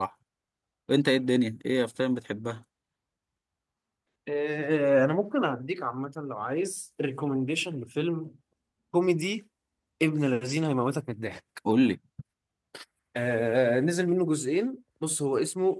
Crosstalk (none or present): none